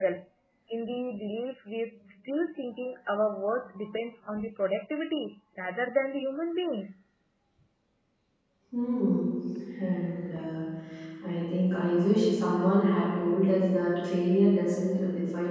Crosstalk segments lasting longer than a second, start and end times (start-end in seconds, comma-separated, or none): none